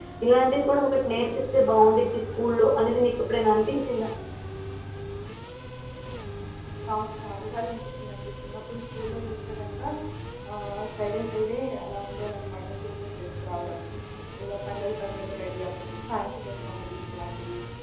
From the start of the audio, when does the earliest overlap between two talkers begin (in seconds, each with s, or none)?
none